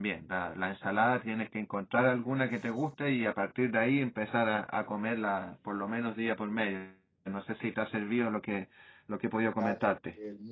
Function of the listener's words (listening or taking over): taking over